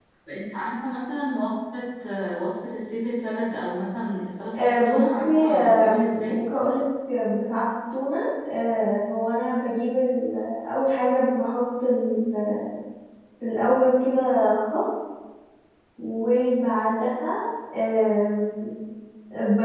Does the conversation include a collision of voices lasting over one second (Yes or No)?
Yes